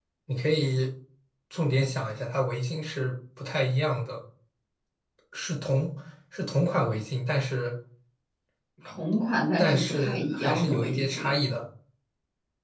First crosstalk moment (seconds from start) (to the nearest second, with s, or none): 10 s